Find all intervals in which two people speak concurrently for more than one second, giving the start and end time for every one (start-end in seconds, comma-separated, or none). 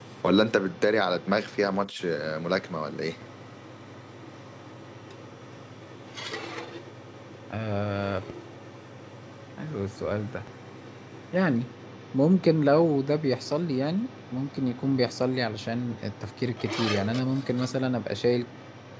none